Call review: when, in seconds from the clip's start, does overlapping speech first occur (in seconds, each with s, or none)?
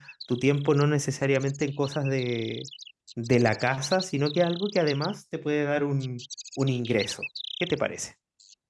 none